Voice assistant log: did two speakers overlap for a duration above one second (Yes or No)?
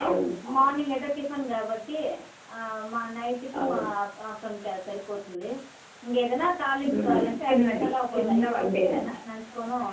Yes